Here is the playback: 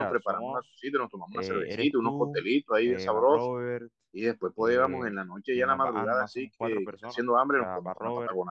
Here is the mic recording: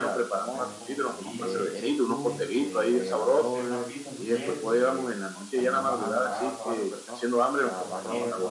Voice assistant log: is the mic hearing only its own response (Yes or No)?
No